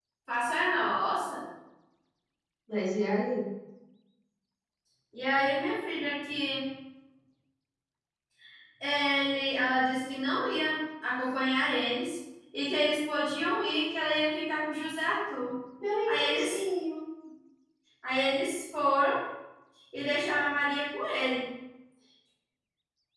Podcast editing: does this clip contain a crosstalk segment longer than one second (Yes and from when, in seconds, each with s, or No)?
No